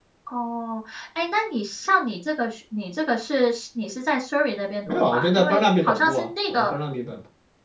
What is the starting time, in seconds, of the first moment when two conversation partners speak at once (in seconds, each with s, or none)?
4.9 s